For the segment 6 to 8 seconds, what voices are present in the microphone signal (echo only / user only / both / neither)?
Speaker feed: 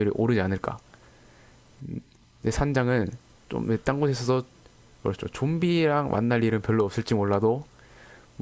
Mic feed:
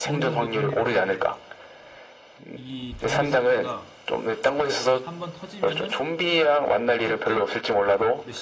both